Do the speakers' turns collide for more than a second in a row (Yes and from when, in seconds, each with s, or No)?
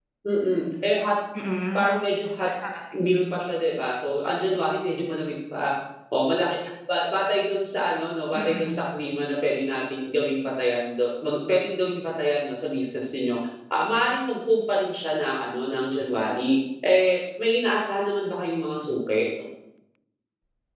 No